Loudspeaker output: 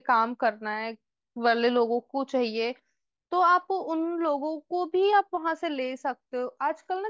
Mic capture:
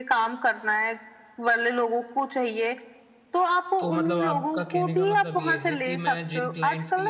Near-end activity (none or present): present